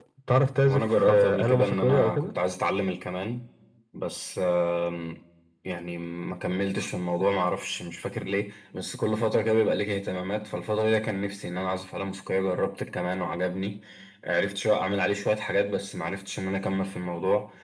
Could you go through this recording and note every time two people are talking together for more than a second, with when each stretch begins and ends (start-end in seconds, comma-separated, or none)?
0.7-2.3